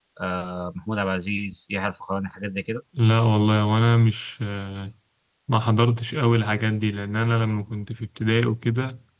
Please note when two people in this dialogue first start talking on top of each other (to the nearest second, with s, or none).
none